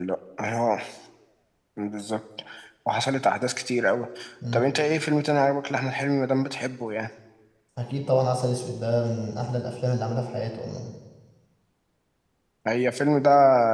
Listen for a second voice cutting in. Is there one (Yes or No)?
No